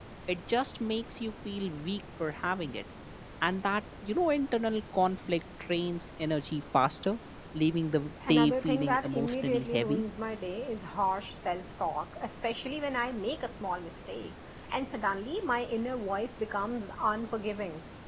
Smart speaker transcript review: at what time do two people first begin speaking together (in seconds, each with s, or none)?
8.3 s